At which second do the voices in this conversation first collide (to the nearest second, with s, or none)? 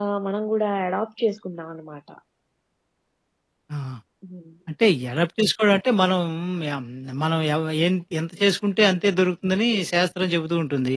none